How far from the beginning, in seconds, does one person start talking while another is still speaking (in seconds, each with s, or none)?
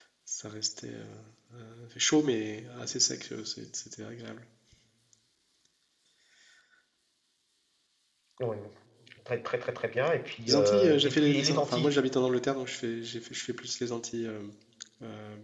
10.5 s